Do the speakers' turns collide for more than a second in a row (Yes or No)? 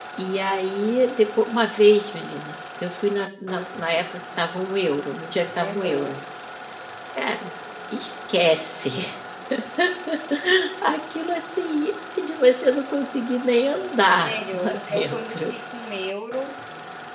Yes